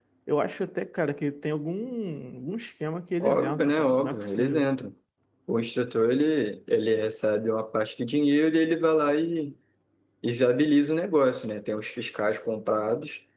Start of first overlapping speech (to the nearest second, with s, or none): 3 s